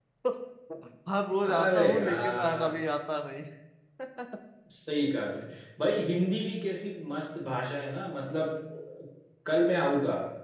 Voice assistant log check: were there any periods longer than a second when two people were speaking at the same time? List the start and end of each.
1.5-2.7

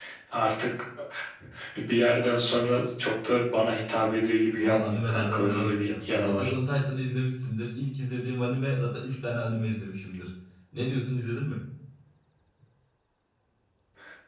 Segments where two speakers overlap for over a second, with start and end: 4.5-6.5

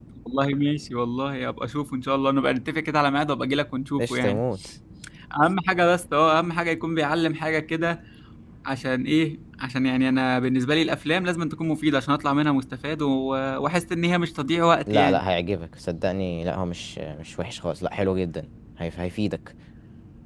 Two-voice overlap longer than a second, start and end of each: none

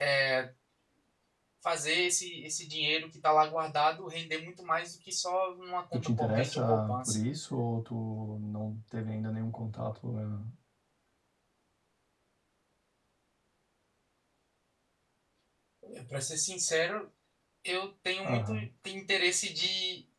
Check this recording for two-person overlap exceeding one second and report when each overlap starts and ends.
5.9-7.2

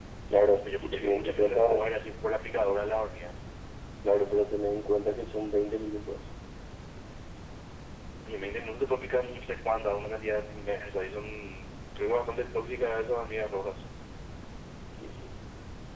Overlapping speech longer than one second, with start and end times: 0.6-1.8

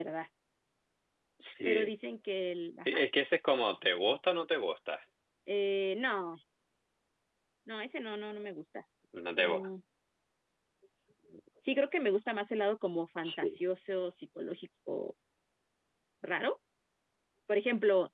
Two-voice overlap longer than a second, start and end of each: none

